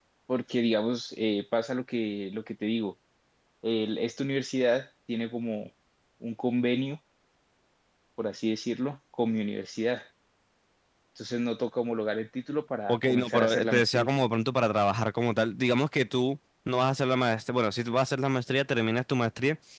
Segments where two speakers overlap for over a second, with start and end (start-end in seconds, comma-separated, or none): 12.9-14.1